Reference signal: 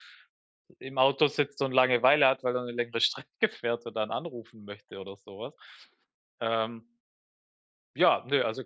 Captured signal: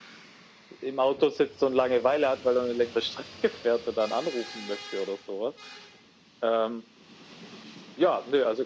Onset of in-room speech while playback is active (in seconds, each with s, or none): none